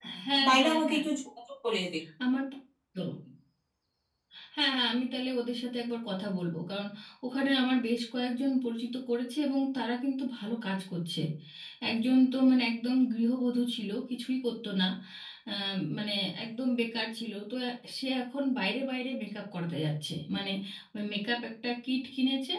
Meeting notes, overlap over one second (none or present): none